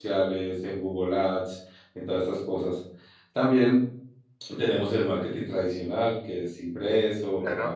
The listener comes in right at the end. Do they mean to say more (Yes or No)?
No